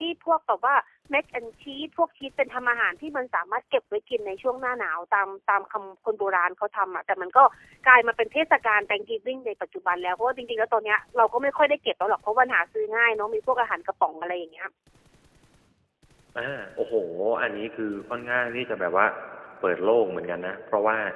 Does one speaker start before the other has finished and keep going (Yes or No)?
No